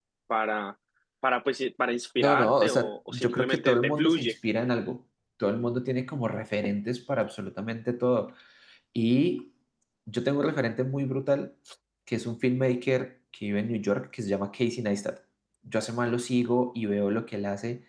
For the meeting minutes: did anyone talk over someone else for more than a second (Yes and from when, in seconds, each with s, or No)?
Yes, from 2.2 s